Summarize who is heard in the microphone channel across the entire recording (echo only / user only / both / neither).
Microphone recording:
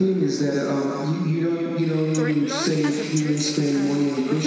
both